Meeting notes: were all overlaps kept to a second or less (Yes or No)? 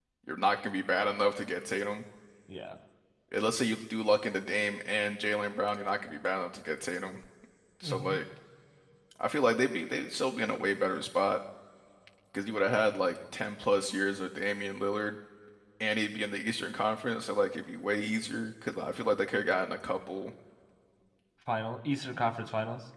Yes